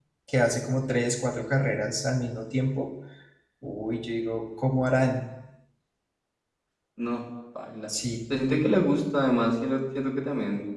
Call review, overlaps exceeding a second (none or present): none